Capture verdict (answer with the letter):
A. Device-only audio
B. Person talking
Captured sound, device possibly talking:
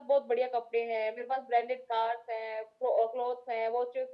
A